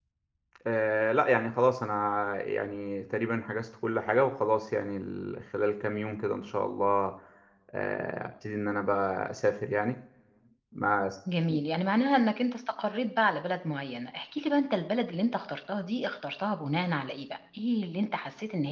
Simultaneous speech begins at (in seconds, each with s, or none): none